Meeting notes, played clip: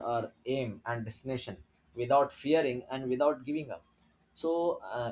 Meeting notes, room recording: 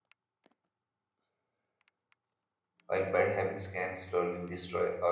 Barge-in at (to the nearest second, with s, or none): 3 s